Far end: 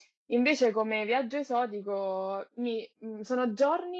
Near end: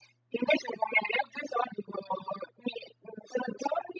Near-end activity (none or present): none